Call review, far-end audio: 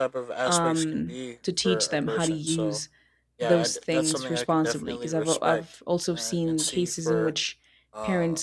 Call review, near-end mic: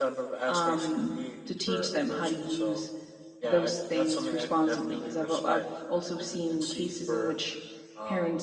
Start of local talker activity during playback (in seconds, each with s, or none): none